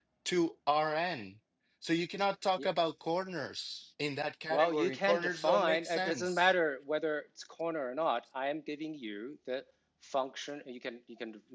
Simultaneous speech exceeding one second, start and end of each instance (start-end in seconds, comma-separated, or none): 4.5-6.5